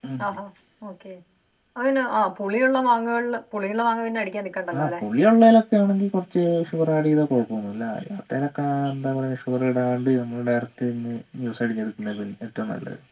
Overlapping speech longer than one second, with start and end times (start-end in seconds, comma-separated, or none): none